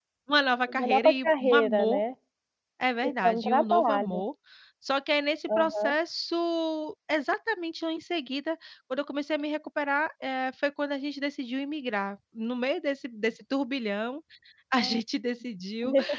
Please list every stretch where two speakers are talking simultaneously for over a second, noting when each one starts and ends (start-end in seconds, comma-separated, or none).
0.7-2.0, 3.0-4.2